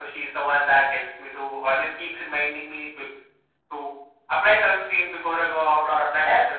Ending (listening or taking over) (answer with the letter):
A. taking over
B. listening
A